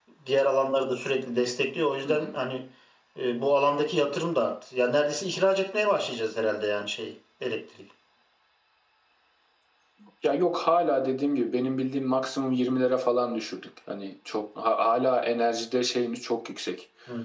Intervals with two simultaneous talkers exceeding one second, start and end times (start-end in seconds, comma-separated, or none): none